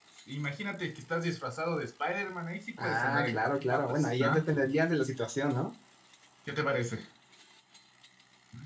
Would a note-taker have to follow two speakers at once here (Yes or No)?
Yes